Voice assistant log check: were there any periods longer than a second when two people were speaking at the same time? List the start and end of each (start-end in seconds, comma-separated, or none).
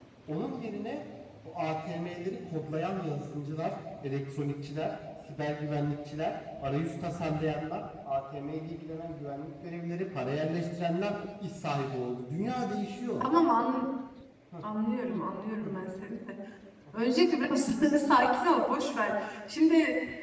none